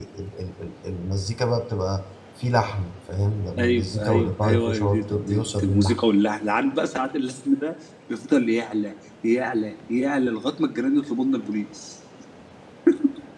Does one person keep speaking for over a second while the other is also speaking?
Yes, from 3.6 s

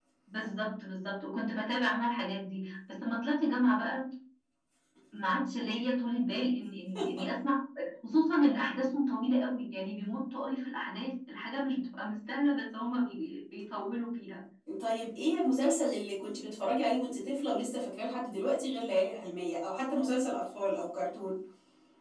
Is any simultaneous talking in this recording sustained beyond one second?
No

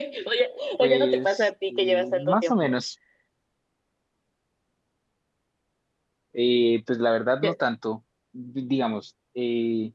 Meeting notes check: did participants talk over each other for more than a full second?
Yes, from 0.8 s

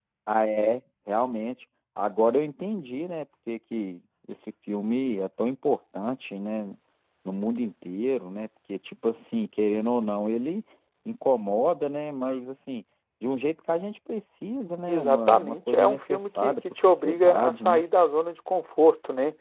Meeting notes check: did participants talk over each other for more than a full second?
Yes, from 14.9 s

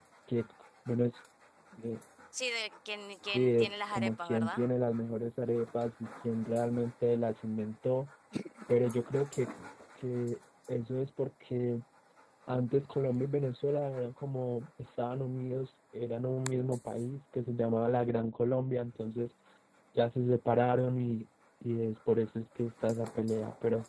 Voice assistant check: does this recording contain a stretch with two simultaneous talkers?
Yes, from 3.3 s

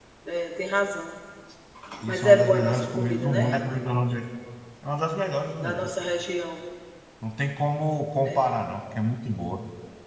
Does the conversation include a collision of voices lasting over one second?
Yes, from 2.1 s

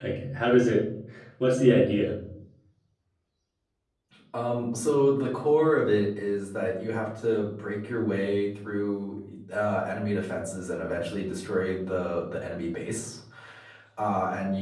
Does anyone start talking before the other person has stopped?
No

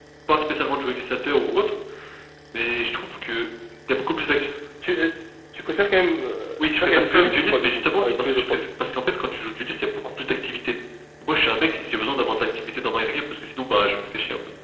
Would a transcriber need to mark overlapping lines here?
Yes, from 6.6 s

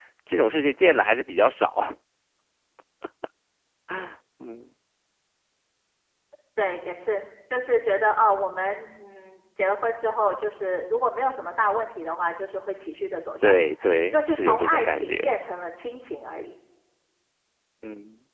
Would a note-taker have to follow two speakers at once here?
Yes, from 13.4 s

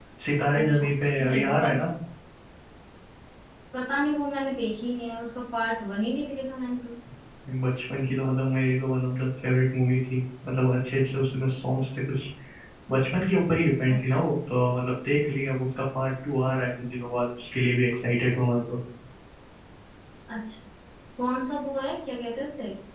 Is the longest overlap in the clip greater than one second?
Yes, from 0.6 s

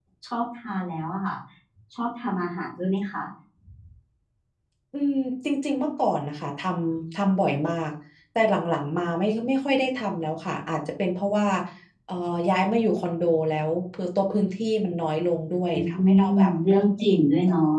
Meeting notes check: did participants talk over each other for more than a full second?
Yes, from 15.7 s

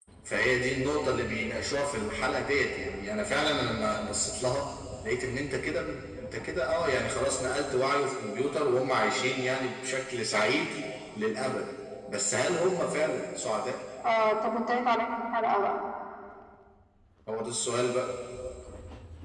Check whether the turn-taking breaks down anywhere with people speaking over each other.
No

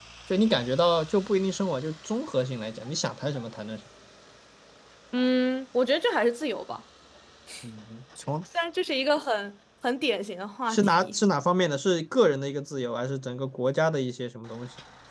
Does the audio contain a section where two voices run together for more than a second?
No

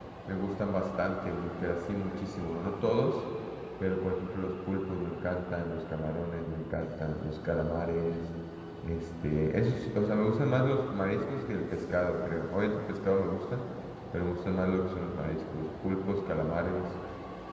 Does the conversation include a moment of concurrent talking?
No

